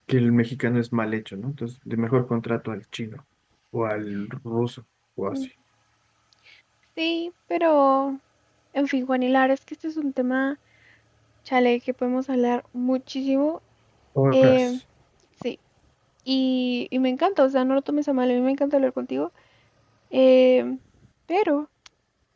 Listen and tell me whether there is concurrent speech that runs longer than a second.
No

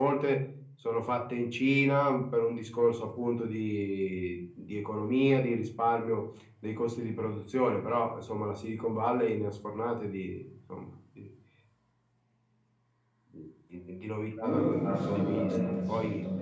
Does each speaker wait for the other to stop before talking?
No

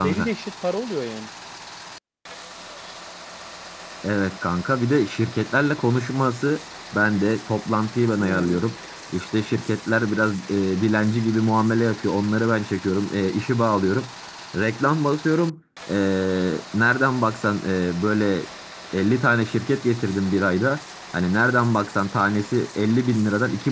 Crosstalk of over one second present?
No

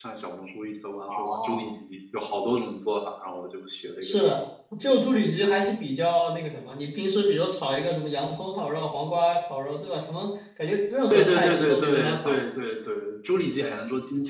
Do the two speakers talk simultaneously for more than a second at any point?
Yes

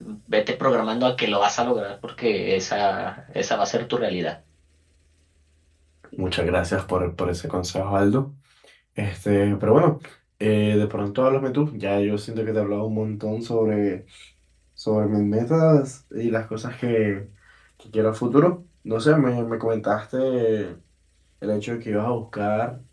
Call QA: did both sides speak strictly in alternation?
Yes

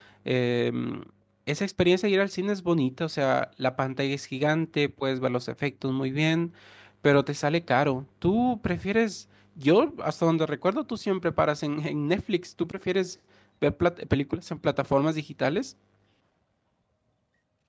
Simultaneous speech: No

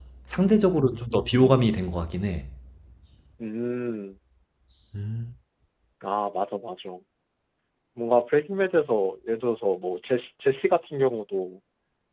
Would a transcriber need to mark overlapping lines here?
No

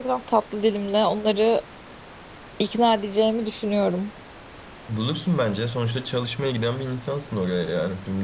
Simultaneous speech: No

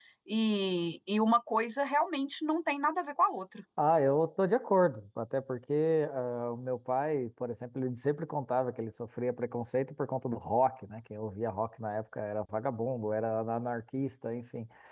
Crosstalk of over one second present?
No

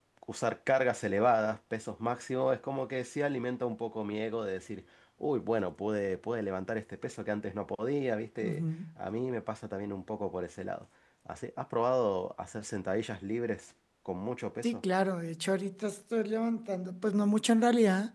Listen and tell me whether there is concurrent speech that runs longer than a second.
No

